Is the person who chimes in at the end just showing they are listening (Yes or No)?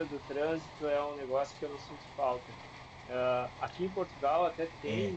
Yes